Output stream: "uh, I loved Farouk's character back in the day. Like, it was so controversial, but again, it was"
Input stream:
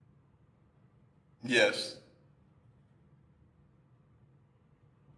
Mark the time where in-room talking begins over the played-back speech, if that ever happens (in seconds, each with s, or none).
1.4 s